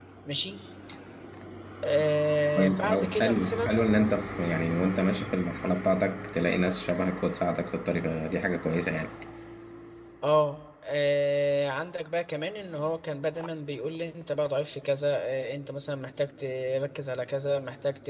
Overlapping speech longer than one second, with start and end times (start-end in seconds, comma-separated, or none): 2.6-3.9